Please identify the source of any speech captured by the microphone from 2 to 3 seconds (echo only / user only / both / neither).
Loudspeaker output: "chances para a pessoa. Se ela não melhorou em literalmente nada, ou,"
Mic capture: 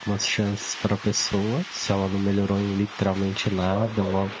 echo only